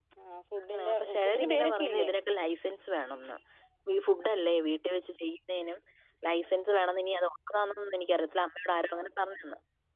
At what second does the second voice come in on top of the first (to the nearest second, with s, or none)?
1 s